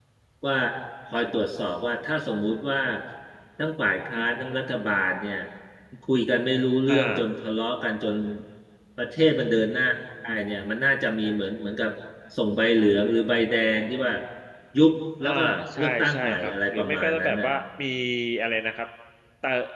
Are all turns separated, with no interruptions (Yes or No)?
No